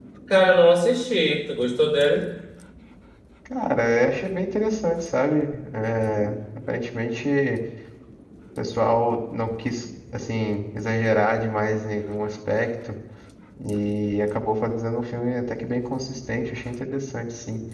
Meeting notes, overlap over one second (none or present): none